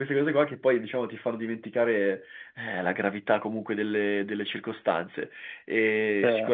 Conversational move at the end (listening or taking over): listening